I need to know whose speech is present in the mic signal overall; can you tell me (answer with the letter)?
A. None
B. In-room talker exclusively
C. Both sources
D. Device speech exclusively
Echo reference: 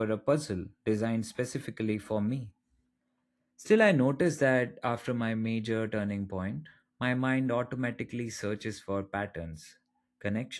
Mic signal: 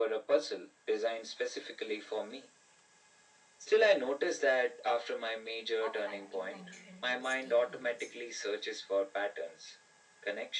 C